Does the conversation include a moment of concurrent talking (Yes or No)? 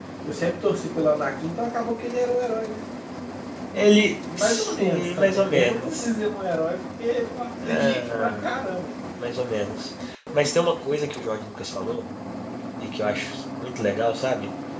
Yes